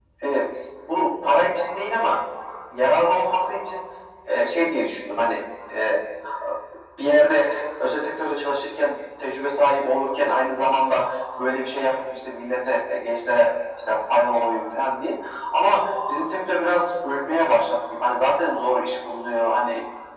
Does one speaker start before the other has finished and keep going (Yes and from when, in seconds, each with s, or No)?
No